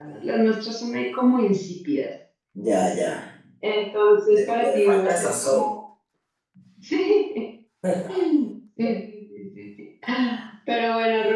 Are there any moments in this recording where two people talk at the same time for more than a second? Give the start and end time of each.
4.3-5.7

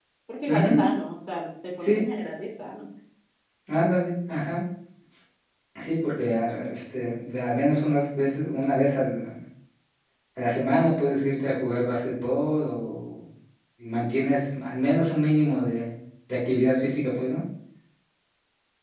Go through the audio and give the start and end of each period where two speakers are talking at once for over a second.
none

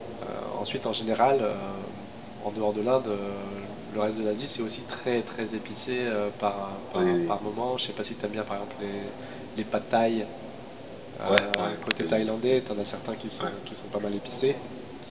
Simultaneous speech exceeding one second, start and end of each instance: 11.3-12.5

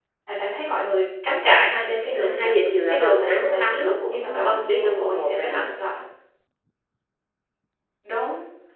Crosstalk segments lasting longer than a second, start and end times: 2.9-5.7

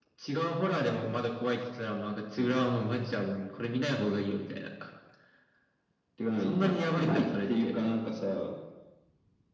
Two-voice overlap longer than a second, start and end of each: 6.4-7.7

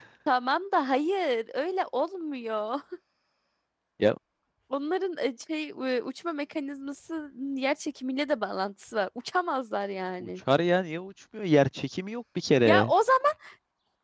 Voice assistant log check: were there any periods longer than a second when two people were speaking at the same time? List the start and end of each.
none

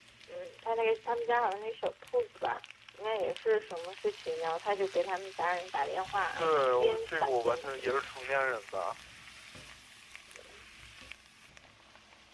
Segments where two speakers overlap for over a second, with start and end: 6.3-7.9

